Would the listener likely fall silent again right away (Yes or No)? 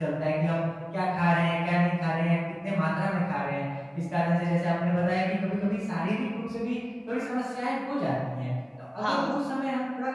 Yes